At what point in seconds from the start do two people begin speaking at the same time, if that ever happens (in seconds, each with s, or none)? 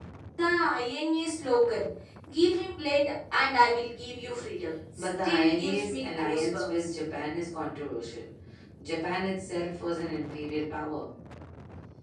5.0 s